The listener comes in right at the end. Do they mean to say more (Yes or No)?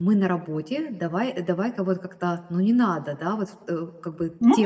No